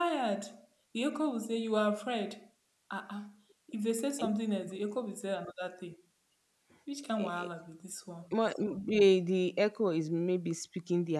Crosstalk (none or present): none